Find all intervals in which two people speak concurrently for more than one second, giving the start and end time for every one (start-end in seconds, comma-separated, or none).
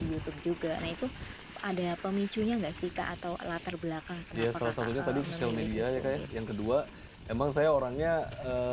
4.3-6.3